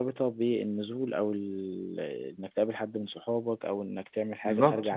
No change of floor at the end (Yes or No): No